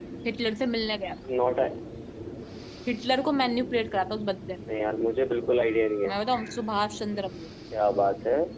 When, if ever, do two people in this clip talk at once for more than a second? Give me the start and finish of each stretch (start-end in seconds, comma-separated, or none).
none